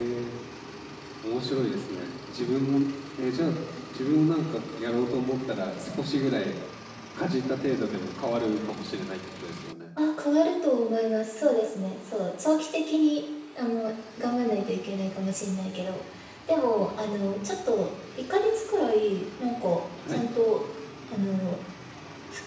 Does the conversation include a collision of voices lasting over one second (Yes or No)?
No